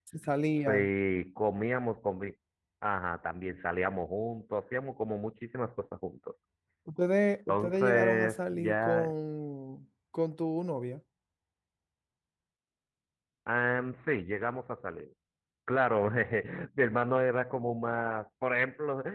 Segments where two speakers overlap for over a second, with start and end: 7.5-9.1

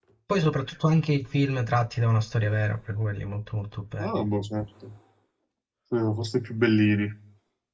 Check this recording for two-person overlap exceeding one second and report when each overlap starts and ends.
none

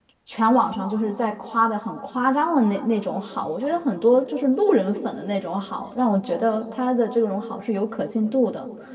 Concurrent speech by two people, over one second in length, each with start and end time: none

